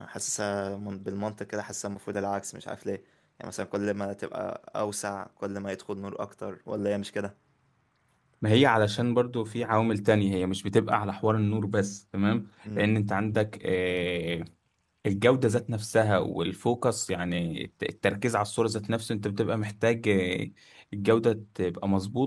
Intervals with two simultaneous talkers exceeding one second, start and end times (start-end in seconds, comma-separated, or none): none